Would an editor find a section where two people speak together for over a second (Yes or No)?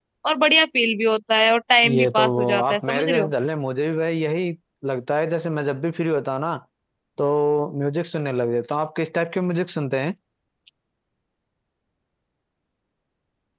Yes